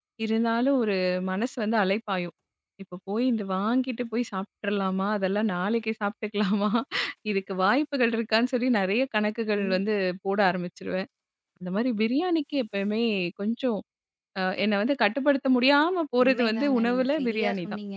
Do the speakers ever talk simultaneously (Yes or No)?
Yes